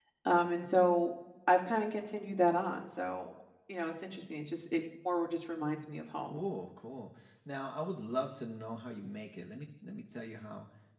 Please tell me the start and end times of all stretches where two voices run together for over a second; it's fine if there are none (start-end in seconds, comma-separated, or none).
none